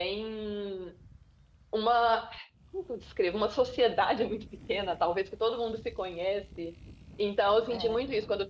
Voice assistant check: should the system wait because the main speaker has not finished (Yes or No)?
Yes